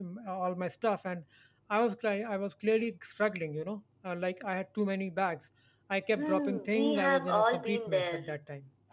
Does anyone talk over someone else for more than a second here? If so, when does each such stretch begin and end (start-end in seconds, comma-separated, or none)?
6.2-8.2